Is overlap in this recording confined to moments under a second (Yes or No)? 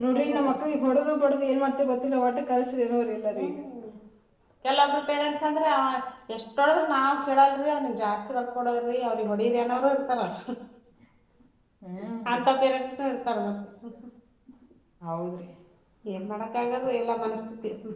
Yes